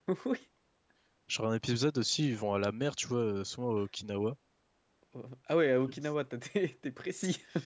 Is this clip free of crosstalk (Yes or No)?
Yes